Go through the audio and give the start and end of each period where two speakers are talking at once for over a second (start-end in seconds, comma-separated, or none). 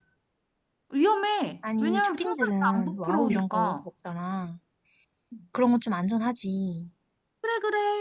1.8-3.8